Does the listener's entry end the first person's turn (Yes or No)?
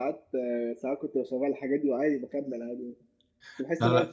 No